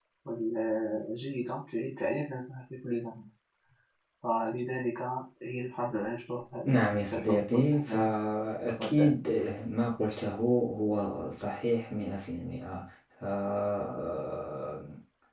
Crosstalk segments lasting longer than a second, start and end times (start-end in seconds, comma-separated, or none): 6.6-8.1